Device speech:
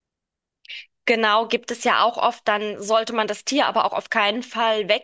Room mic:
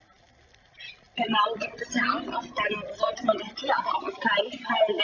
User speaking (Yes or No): Yes